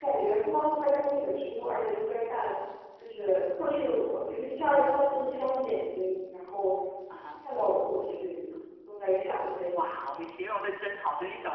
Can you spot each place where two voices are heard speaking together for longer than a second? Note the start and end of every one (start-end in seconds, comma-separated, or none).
none